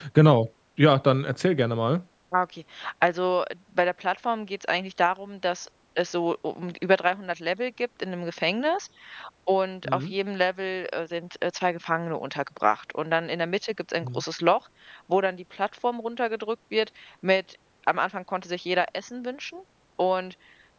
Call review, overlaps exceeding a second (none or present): none